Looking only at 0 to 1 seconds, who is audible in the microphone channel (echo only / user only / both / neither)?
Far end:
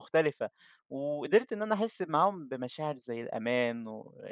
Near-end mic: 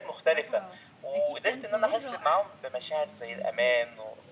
both